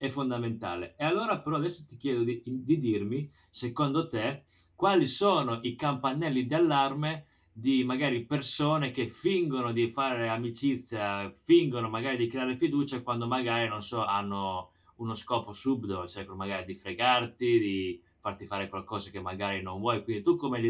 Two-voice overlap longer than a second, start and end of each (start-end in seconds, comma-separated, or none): none